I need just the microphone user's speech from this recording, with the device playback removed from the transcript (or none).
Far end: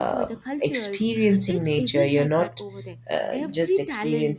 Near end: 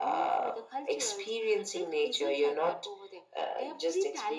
none